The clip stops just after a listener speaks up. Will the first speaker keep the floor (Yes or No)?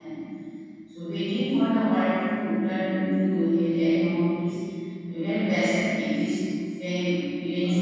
No